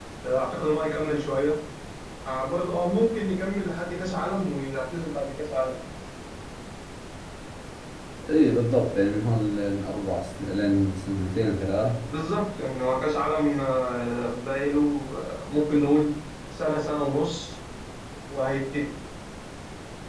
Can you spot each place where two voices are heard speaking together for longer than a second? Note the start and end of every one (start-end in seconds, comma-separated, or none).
none